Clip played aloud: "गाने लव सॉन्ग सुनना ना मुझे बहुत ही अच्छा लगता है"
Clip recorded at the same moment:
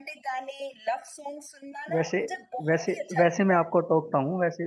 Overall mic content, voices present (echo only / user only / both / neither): both